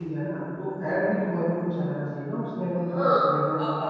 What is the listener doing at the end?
taking over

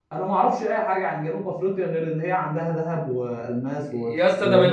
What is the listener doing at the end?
taking over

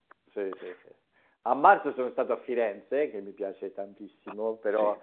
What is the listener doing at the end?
listening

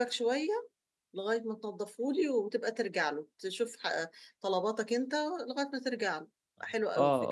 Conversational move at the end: taking over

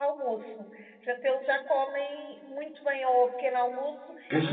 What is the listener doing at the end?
taking over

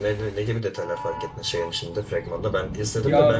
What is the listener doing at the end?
listening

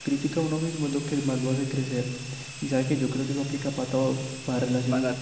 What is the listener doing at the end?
listening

